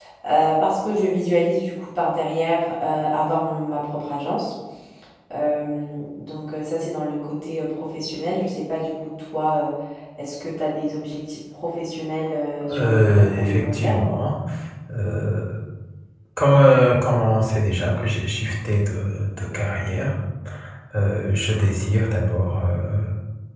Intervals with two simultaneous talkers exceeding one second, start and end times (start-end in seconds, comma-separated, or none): 12.7-14.1